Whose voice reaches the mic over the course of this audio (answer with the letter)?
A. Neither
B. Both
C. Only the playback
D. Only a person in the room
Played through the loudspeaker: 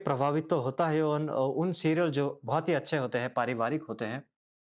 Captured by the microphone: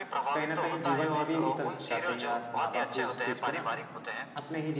B